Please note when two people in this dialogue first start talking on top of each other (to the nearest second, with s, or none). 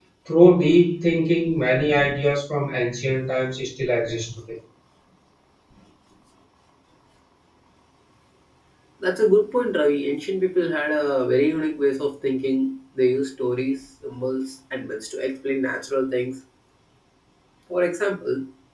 none